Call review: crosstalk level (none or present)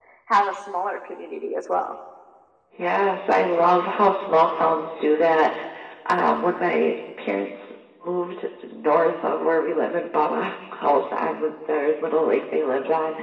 none